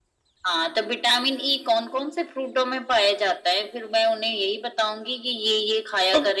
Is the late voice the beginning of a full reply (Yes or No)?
Yes